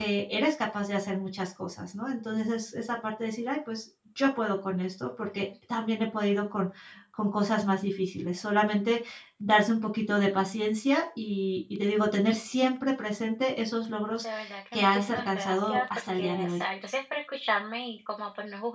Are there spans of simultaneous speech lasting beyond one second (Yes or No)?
Yes